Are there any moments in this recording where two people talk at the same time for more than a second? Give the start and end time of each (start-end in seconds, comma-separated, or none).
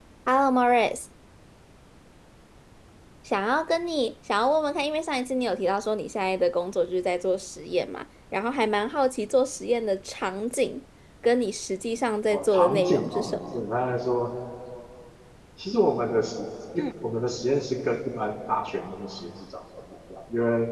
12.3-13.6